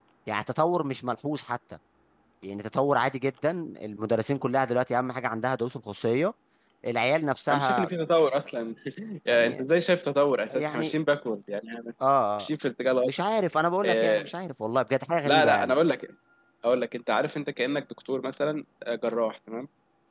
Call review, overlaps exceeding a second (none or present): none